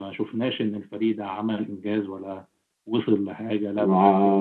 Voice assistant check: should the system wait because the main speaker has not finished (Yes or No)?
No